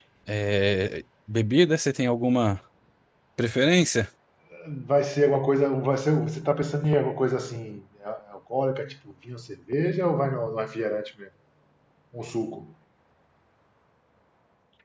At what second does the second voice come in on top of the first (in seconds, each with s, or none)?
none